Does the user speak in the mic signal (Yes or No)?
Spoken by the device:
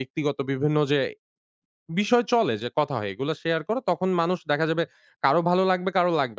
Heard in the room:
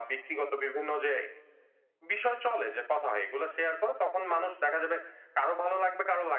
No